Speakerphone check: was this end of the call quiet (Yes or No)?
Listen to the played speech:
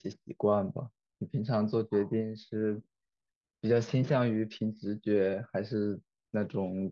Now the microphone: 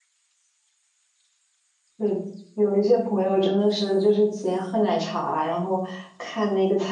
No